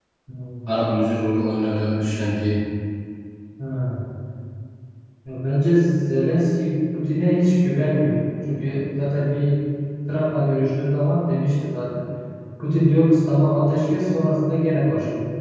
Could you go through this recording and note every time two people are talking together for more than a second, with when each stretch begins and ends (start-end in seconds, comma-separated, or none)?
none